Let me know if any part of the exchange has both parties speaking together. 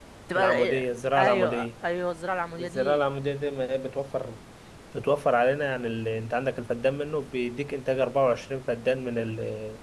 Yes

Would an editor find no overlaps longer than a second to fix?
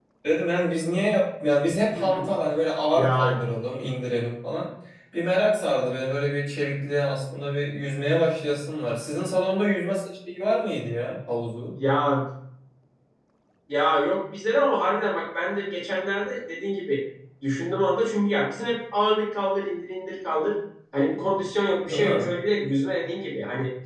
Yes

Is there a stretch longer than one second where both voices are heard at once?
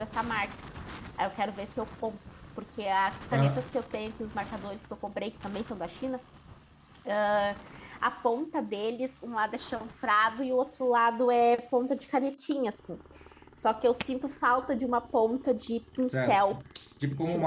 No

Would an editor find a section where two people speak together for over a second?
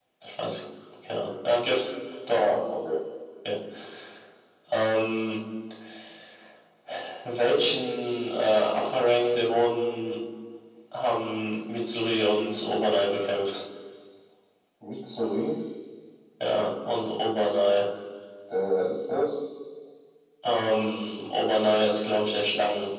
No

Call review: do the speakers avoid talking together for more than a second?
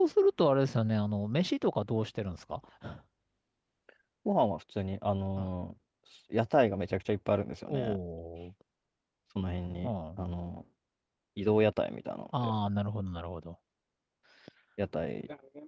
Yes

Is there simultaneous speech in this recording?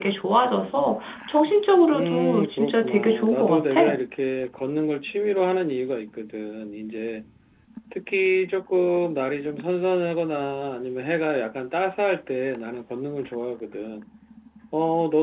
Yes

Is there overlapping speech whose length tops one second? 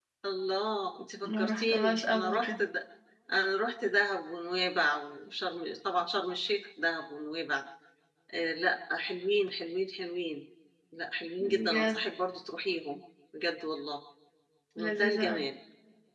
Yes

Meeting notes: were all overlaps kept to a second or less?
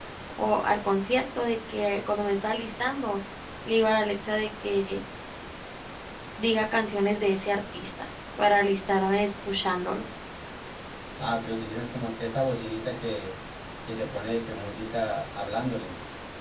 Yes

